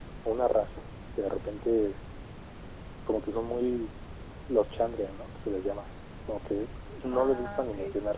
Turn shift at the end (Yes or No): No